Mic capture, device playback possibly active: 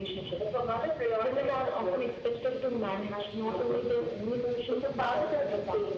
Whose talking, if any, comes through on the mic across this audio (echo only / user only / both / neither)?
echo only